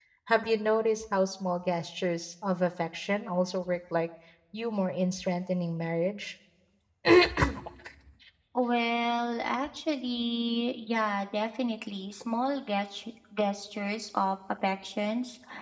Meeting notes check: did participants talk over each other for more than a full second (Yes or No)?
No